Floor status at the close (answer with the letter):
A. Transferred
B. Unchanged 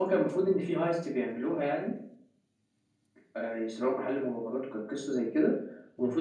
B